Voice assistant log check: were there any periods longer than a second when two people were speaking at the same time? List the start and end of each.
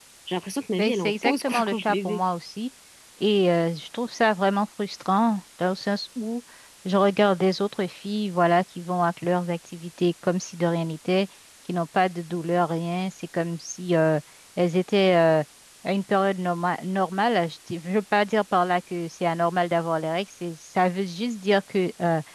0.8-2.2

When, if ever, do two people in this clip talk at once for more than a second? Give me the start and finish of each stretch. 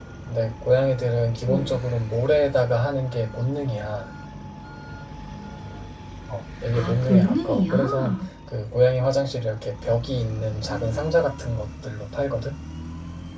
6.7-8.2

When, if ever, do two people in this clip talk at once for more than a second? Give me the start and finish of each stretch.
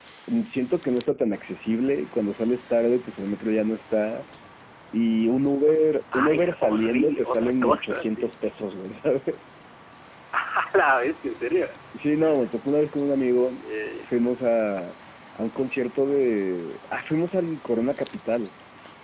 6.1-8.3

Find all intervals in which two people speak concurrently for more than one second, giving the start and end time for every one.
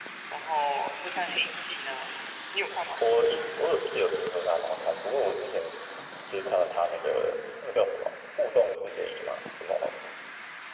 none

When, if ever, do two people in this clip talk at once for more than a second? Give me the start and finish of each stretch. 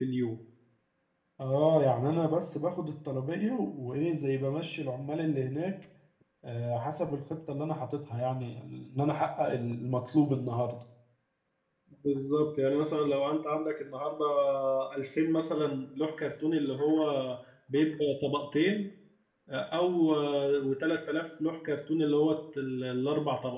none

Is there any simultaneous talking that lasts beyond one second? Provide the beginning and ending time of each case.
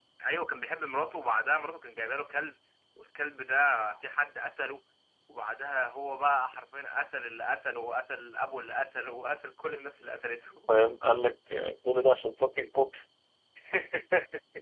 none

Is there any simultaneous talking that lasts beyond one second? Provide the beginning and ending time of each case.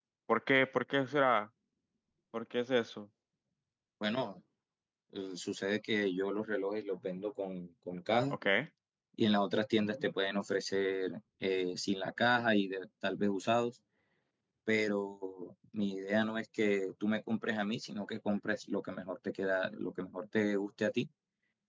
none

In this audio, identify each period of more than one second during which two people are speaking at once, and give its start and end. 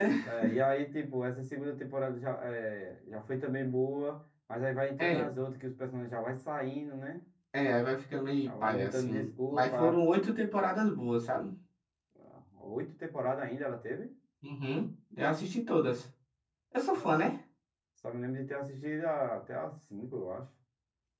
8.4-10.0

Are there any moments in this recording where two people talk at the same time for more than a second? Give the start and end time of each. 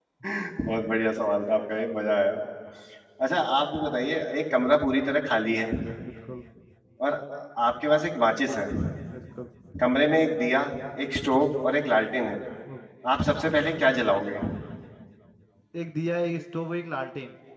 none

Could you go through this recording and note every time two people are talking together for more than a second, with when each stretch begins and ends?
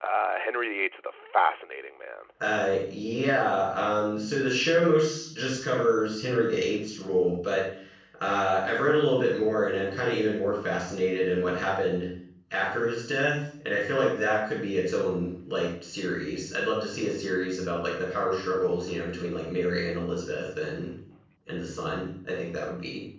none

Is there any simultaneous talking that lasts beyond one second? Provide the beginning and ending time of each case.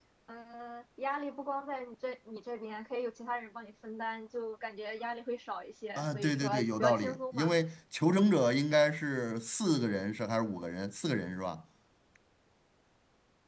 6.0-7.5

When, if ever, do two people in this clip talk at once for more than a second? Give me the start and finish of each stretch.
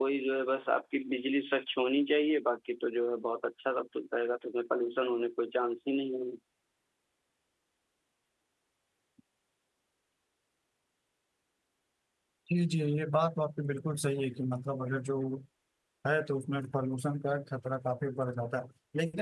none

